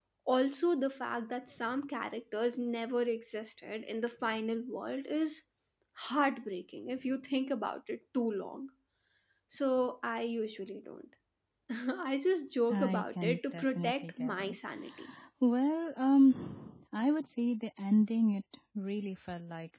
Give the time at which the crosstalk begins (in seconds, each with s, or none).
12.7 s